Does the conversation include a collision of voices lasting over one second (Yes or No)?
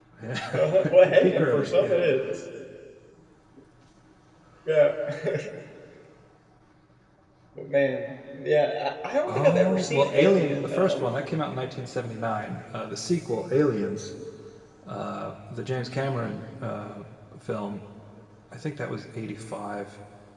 Yes